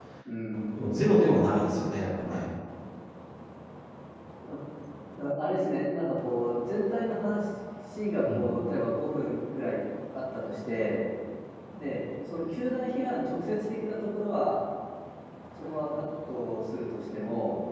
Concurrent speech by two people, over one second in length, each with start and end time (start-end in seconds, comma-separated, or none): none